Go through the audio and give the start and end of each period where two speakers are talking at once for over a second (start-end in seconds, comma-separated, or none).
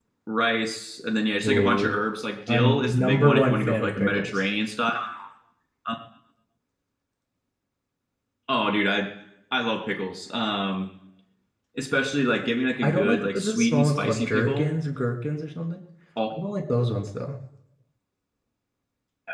2.5-4.4, 12.8-14.7